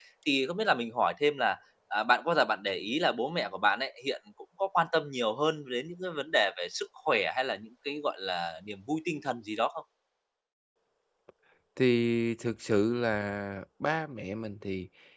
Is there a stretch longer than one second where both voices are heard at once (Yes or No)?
No